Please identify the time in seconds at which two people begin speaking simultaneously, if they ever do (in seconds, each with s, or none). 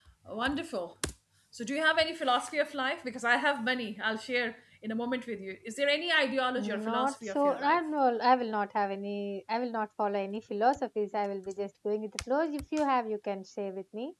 6.6 s